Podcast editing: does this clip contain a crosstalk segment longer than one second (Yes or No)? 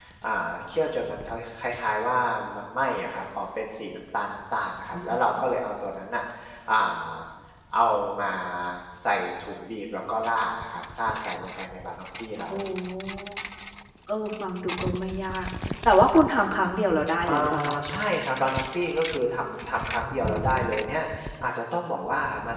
No